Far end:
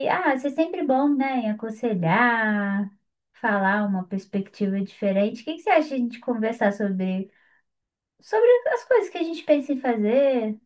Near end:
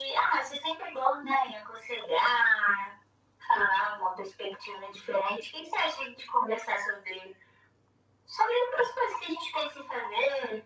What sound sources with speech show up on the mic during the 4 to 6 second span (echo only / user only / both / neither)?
echo only